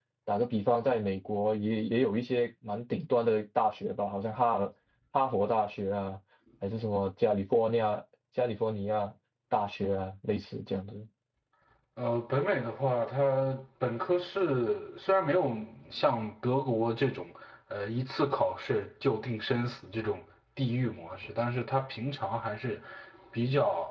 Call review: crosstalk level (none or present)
none